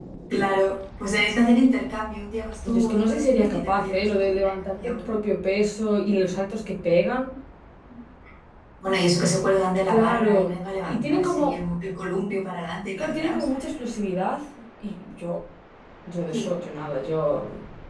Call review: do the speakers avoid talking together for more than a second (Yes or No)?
No